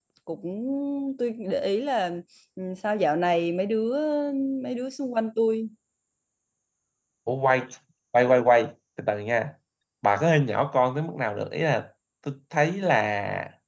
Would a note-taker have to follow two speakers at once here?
No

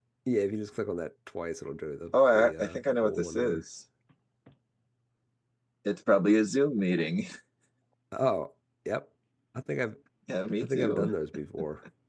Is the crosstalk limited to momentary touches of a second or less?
No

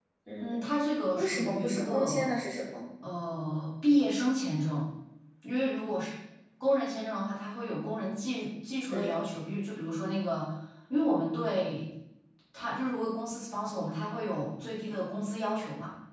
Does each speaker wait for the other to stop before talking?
No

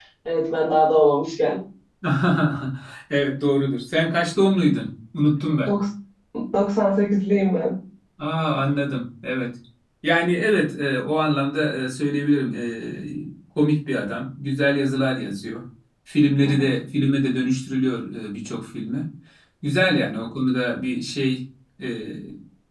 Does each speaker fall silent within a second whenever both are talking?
Yes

